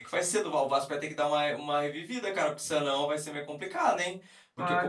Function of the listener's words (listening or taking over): listening